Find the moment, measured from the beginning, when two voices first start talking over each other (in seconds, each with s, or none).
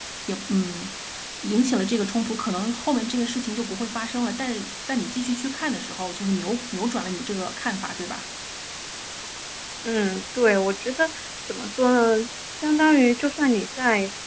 none